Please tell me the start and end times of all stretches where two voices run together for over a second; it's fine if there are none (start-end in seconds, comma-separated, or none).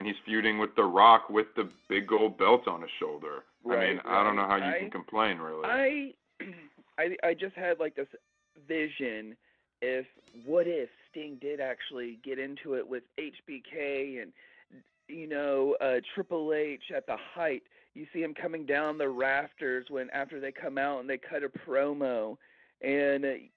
3.7-4.9